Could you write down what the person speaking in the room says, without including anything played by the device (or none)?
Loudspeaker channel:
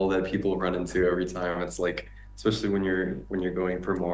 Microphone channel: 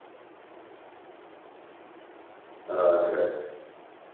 Oh, okay.